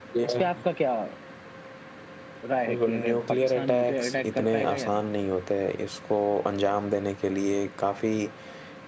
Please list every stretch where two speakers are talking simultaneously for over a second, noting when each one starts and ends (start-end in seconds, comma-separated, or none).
2.7-5.0